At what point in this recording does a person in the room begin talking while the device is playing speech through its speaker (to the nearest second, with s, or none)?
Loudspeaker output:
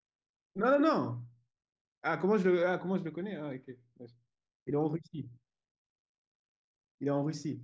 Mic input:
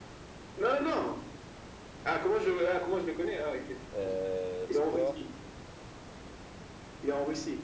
4 s